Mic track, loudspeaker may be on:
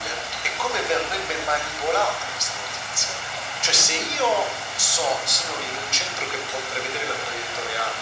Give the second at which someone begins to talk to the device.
none

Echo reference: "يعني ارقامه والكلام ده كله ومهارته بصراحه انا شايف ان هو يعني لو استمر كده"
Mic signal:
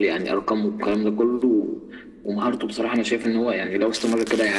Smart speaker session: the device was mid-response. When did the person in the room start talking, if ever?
none

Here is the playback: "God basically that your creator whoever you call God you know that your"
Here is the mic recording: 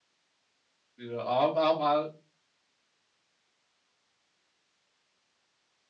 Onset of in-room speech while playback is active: 1.0 s

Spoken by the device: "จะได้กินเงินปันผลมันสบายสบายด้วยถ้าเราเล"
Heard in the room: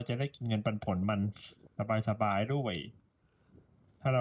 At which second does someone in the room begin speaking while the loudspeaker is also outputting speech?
none

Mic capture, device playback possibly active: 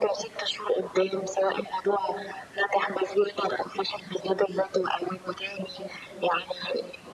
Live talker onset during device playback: none

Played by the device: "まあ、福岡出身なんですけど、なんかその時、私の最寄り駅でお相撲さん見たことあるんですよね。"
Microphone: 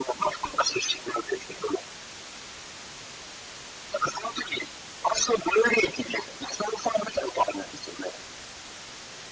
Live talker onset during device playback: none

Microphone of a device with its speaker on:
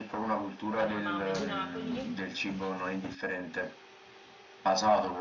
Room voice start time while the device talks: 0.7 s

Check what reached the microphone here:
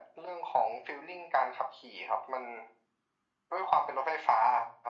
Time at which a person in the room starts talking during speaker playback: none

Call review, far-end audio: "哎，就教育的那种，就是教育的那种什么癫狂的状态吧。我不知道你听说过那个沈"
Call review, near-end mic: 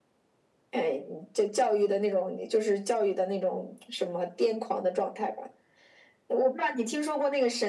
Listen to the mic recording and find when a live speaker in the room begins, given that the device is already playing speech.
none

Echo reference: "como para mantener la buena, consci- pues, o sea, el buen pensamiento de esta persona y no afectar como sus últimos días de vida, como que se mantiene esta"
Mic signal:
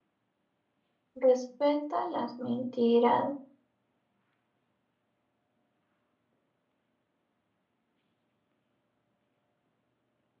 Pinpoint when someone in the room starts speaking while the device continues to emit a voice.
1.2 s

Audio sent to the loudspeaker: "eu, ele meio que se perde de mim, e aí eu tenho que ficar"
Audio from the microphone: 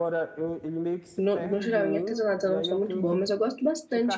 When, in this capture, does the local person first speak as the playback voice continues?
1.2 s

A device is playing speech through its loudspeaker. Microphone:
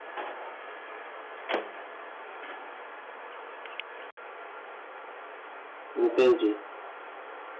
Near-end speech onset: 5.9 s

